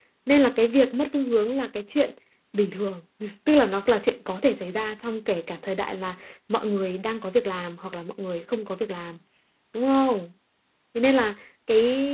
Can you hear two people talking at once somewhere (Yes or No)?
No